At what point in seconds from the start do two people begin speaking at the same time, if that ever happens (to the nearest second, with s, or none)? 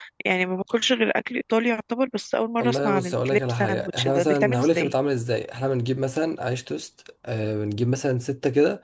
3 s